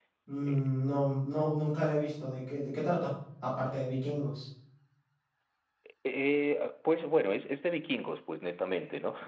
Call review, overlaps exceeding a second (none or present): none